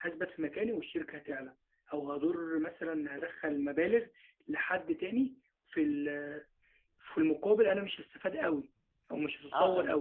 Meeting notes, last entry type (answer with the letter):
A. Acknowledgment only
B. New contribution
B